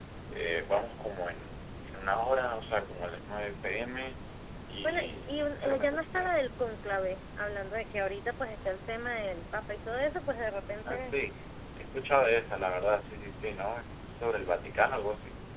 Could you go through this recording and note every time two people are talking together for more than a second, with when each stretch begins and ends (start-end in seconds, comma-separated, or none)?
4.8-6.3